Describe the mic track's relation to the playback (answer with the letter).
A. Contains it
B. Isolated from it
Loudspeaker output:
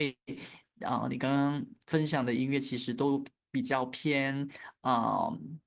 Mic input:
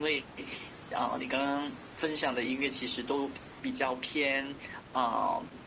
A